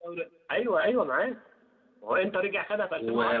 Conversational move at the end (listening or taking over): taking over